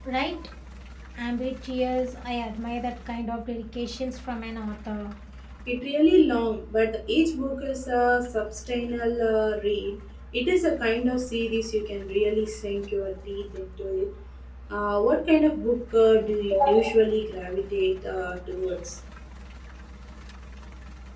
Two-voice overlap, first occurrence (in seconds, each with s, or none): none